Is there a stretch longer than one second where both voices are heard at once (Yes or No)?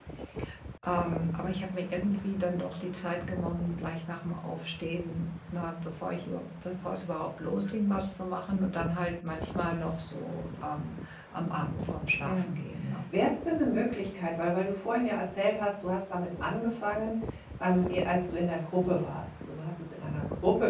No